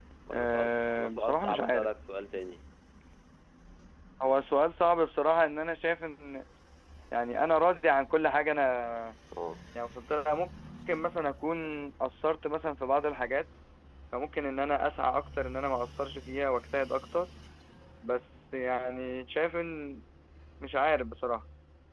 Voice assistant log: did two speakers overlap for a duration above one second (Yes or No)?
Yes